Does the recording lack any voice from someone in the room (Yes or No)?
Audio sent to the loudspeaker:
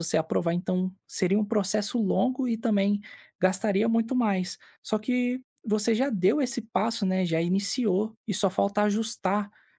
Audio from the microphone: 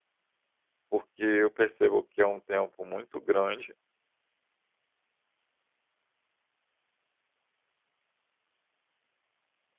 No